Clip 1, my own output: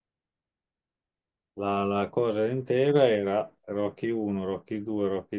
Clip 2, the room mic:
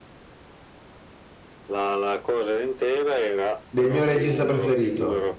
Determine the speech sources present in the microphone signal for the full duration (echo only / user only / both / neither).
both